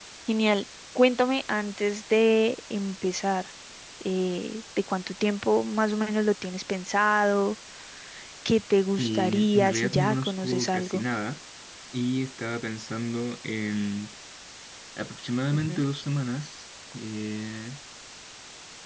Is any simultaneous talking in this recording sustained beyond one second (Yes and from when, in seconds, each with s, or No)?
Yes, from 9.0 s